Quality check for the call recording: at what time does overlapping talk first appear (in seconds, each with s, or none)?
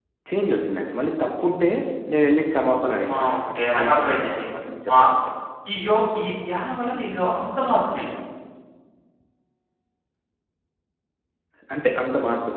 3.0 s